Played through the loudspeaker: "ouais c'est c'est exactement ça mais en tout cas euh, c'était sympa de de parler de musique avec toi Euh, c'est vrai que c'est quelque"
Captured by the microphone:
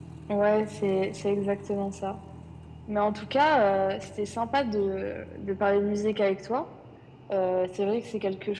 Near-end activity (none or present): none